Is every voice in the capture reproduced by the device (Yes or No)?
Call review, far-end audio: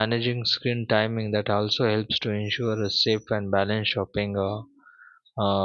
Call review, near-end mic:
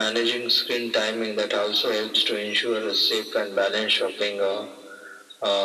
Yes